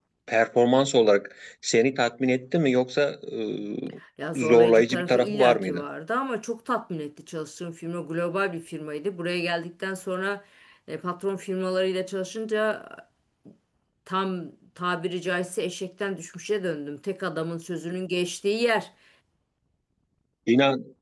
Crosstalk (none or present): present